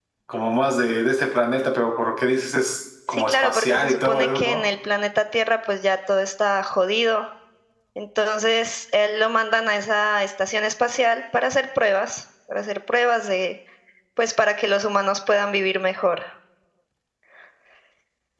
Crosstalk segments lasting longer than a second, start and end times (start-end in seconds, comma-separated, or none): 3.1-4.6